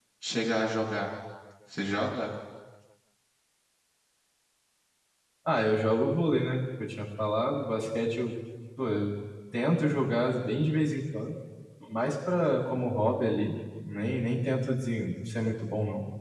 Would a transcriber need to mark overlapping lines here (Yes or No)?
No